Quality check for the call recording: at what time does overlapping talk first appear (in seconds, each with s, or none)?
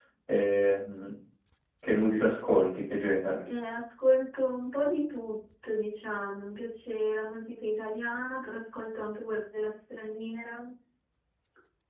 none